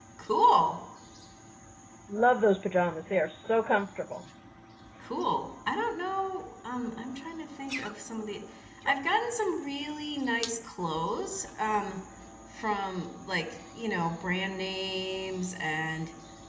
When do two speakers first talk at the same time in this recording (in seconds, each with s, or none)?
none